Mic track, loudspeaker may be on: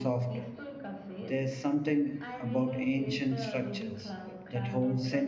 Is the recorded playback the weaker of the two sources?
Yes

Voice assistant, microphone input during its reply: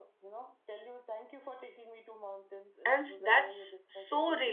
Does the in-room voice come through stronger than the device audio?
Yes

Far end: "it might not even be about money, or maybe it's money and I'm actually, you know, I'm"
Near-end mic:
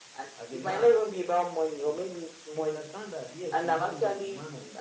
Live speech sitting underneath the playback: Yes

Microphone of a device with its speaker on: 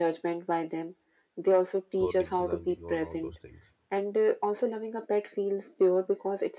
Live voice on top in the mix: No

